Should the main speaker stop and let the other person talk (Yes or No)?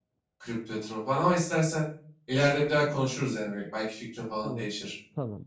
Yes